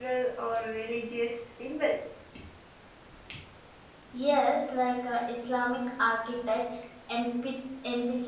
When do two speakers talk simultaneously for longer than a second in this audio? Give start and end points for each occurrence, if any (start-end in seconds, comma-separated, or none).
none